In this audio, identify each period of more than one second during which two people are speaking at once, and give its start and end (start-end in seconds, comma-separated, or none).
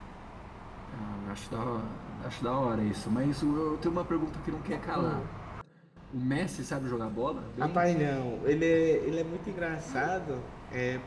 none